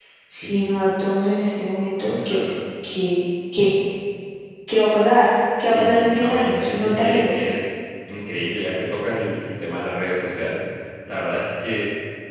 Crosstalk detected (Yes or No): Yes